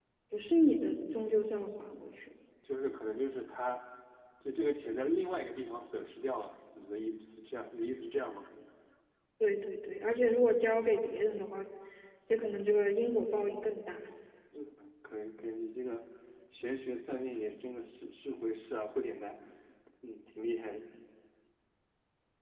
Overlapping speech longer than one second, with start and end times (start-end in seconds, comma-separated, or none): none